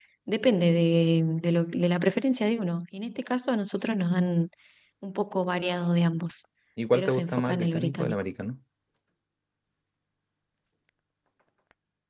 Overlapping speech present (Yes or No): Yes